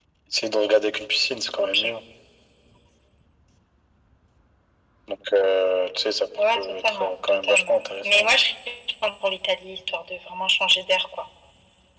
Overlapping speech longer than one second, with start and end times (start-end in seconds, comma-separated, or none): 6.5-8.4